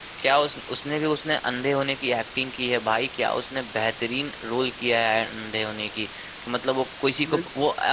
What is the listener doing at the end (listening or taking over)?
listening